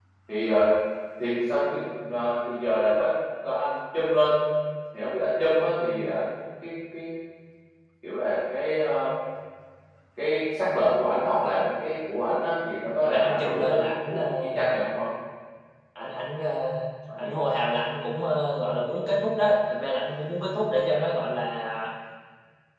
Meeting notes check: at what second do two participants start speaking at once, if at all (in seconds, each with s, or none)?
13.0 s